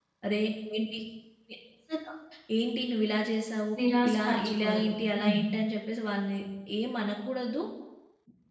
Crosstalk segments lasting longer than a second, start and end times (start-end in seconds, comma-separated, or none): 4.1-5.4